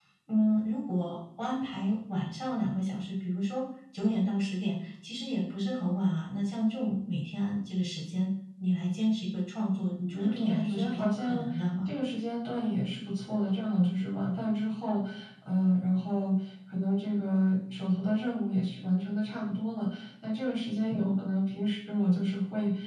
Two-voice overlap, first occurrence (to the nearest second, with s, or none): 10 s